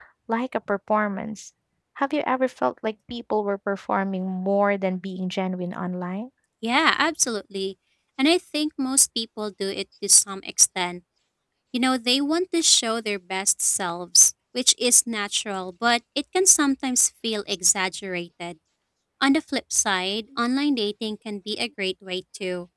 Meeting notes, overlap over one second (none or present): none